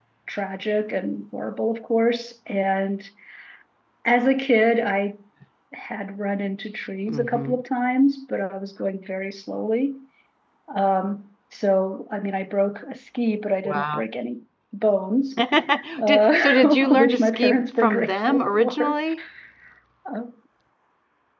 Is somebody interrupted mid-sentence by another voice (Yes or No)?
Yes